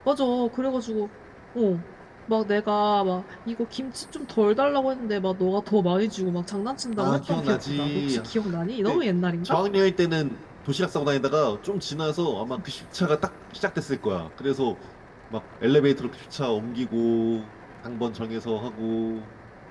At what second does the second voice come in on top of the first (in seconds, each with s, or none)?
7.0 s